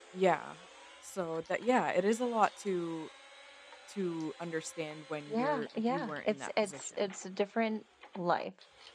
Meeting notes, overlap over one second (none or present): present